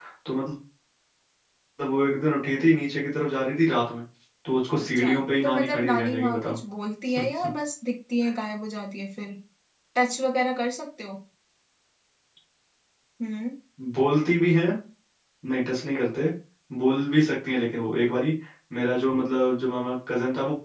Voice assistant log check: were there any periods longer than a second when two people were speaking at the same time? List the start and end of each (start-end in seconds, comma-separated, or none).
4.8-6.6